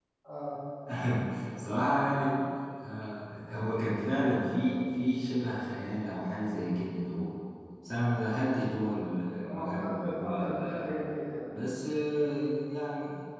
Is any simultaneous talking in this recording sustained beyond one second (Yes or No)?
Yes